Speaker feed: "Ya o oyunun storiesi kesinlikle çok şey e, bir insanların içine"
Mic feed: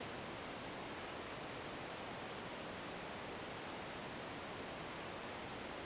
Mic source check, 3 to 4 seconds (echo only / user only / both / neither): neither